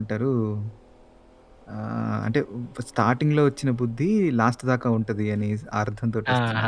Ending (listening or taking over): taking over